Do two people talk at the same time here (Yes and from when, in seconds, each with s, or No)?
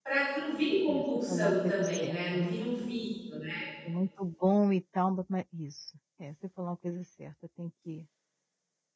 Yes, from 0.9 s